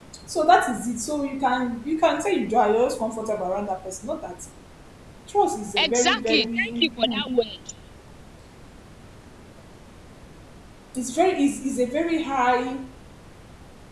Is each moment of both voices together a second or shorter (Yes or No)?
No